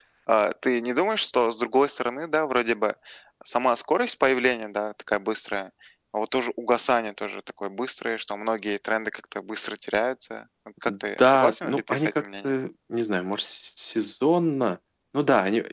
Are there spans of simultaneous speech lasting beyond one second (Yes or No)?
Yes